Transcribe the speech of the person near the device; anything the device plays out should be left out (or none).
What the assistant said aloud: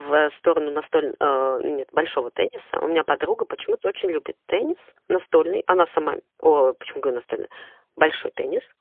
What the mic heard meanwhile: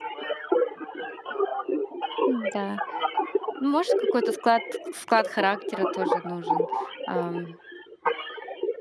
Н-да. Ну, может, какой-то склад склад характера тоже нужен, ам.